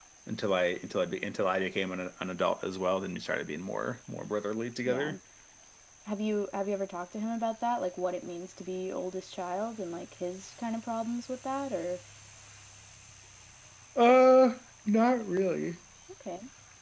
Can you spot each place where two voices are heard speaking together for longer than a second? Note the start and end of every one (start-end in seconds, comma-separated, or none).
none